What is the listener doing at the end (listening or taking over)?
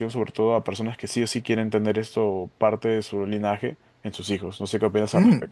taking over